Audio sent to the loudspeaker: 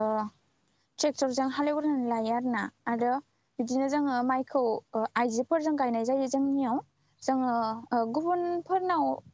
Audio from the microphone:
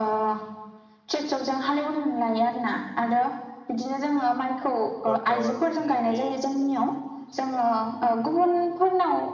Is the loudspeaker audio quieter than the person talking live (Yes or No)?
No